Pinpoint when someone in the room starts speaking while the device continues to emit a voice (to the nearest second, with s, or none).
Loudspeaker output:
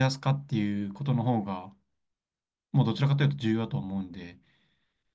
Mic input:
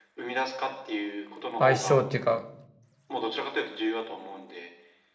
2 s